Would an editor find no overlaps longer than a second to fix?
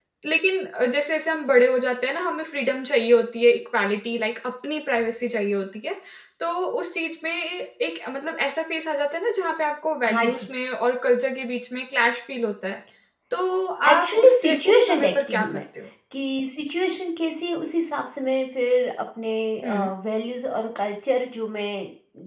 No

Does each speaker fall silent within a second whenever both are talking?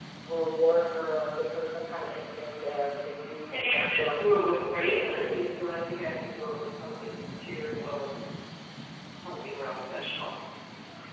No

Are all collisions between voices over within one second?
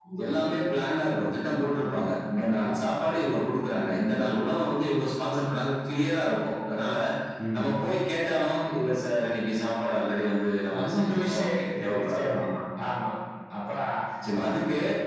No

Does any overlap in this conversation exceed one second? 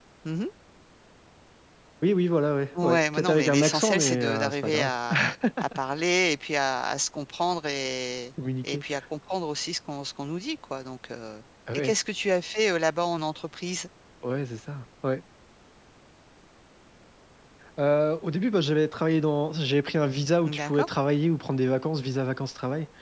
Yes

